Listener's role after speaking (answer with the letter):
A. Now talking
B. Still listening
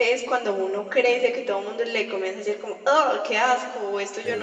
B